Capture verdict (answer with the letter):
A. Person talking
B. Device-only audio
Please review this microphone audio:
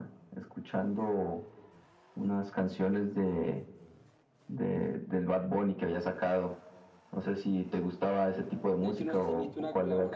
A